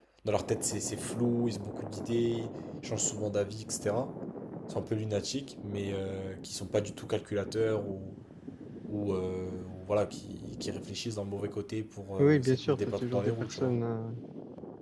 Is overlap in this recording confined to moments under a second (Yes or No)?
No